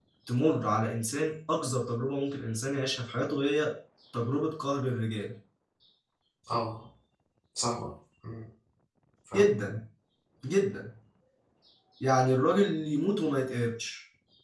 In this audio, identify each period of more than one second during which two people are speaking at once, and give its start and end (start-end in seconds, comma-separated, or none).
none